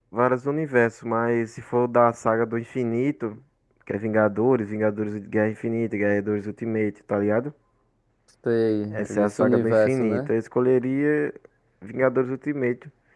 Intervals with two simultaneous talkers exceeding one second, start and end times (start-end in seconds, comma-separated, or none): 8.9-10.3